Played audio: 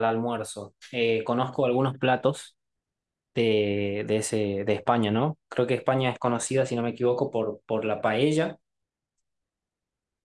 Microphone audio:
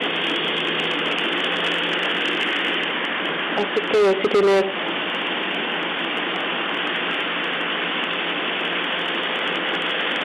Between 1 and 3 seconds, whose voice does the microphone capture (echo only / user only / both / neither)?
neither